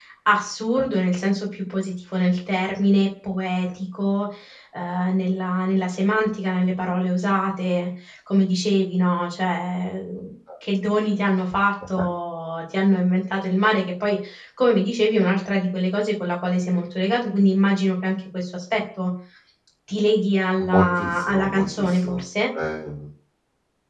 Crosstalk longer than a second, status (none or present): present